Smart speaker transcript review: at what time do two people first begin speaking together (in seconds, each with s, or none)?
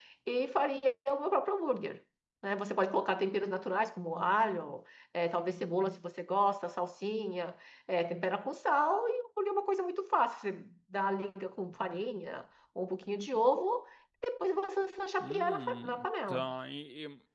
15.2 s